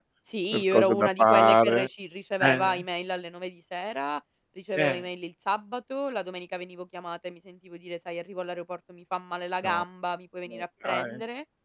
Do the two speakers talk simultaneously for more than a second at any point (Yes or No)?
Yes